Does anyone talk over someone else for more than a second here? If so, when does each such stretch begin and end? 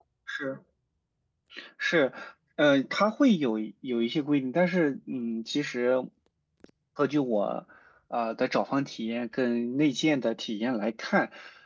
none

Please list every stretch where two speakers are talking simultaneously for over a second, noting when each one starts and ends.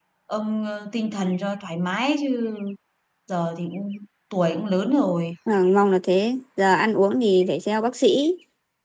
none

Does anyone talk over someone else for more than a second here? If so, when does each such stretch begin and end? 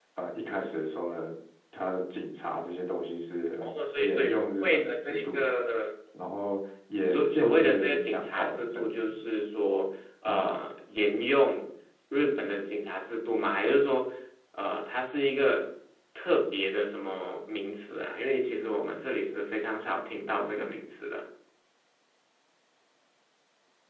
3.6-5.4, 7.1-9.1

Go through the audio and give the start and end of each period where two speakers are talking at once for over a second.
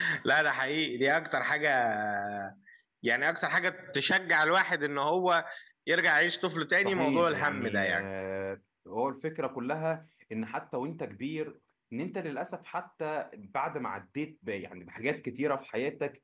6.8-8.1

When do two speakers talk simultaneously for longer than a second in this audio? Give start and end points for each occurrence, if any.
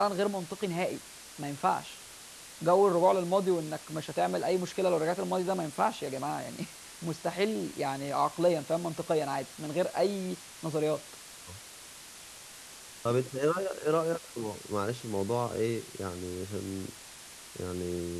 none

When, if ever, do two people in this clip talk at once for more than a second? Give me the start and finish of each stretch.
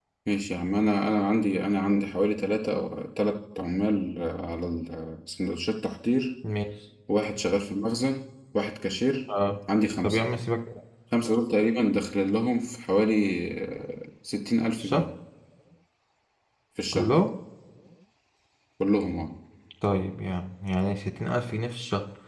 none

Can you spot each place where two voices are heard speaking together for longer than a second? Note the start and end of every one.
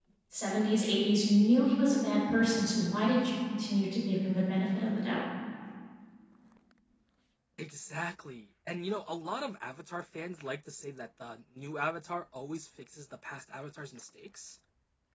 none

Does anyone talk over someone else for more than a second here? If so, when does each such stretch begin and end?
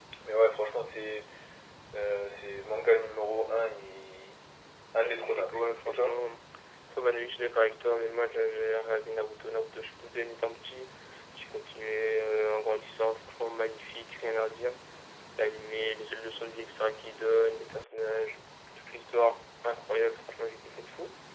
5.0-6.2

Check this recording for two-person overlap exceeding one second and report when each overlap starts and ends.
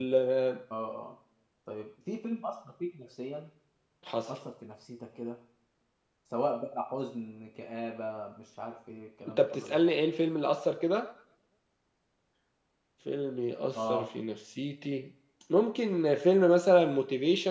none

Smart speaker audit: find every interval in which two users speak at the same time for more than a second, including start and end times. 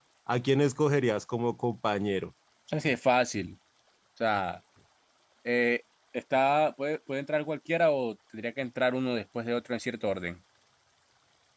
none

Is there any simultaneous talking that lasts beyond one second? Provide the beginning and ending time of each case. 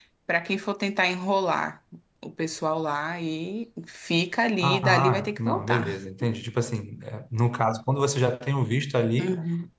4.6-6.0

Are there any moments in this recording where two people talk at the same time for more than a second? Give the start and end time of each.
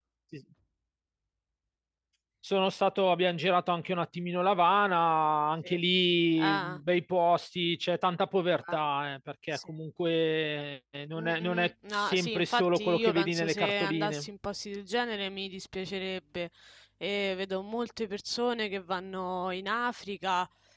11.2-14.3

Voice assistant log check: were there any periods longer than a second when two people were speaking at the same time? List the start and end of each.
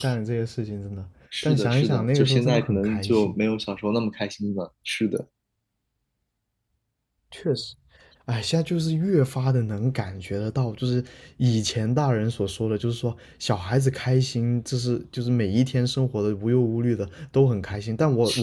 1.4-3.3

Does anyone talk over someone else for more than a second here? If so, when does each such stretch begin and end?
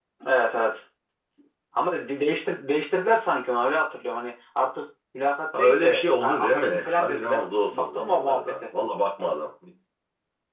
5.6-8.6

